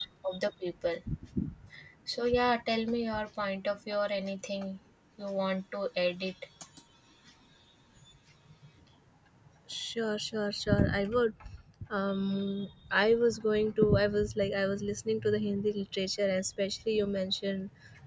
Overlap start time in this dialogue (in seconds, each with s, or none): none